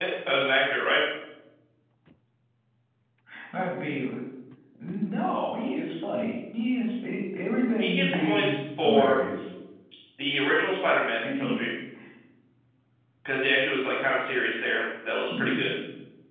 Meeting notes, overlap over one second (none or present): present